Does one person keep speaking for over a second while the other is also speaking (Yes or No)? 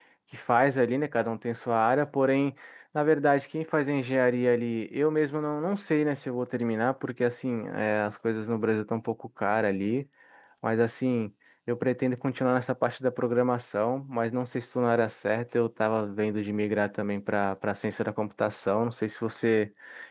No